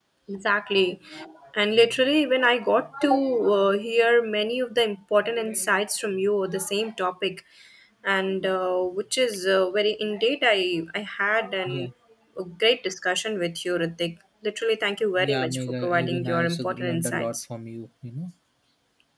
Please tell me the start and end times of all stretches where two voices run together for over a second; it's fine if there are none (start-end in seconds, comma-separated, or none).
15.3-17.4